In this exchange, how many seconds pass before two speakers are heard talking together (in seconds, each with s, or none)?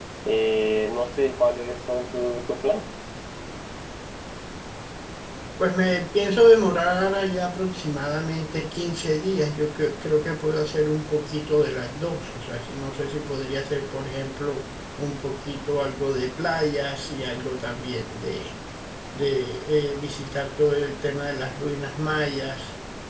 none